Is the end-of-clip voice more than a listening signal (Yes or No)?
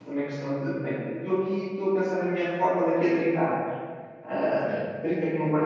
No